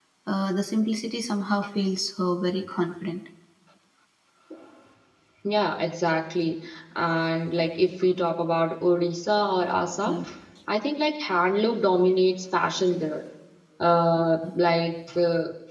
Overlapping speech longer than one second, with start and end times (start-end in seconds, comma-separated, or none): none